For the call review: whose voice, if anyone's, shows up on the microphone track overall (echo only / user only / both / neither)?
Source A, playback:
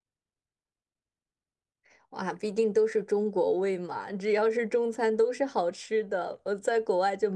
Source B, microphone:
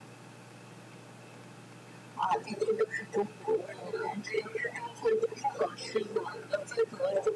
echo only